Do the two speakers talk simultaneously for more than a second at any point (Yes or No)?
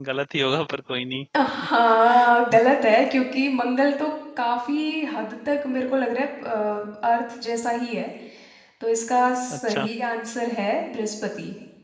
No